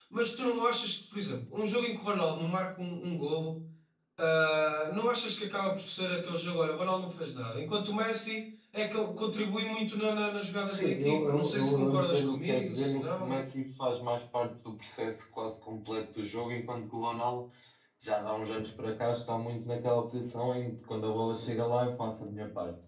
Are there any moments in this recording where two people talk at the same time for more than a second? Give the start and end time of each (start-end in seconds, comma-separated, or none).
10.7-13.4